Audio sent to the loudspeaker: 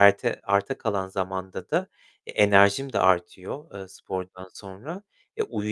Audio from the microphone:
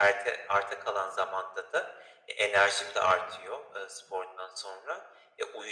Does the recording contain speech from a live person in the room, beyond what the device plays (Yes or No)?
No